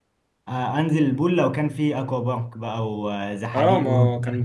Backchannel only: No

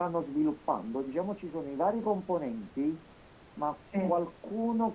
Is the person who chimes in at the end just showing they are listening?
Yes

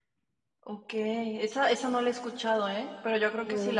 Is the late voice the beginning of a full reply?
No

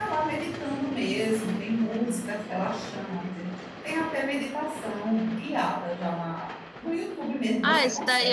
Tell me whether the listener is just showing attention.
No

